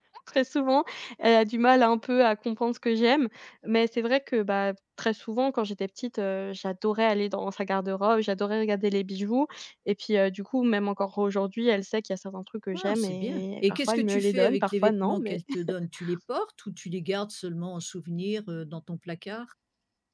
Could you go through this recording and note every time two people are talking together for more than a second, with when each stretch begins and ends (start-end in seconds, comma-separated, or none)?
12.7-15.4